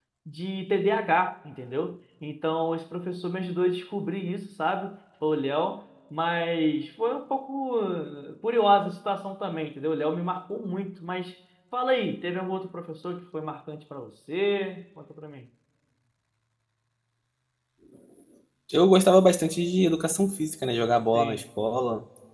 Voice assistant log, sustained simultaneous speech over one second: none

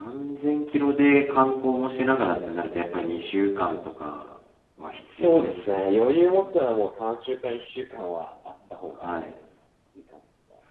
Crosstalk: present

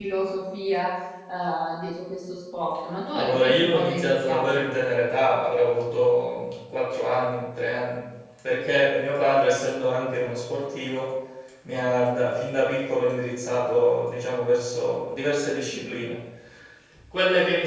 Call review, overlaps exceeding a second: present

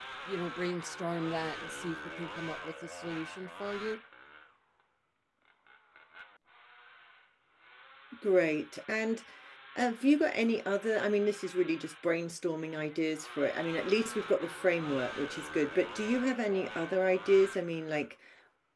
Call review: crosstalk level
none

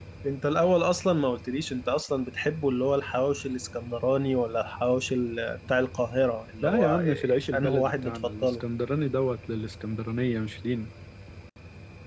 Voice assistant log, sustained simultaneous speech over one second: present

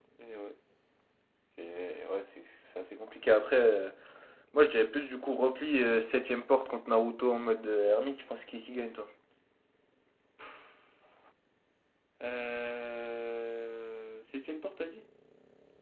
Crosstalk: none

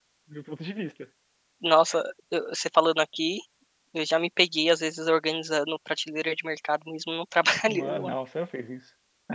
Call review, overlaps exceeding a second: none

